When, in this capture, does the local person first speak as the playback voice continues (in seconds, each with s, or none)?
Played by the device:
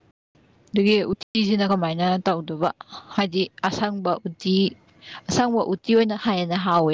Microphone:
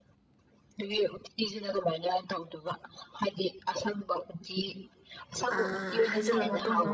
5.6 s